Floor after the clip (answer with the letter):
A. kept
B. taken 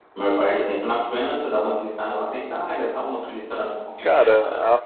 B